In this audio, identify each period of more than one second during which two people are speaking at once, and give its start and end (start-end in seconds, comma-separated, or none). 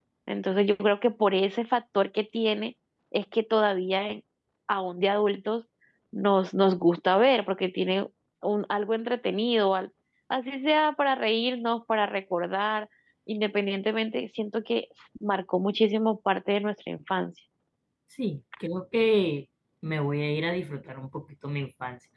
none